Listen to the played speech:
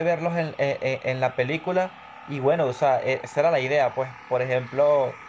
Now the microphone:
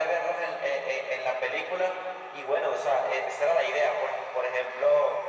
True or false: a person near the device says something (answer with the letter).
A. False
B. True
A